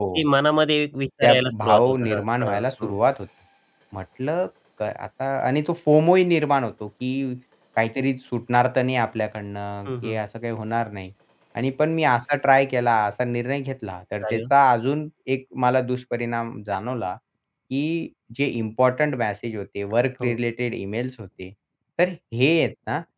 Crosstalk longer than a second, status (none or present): present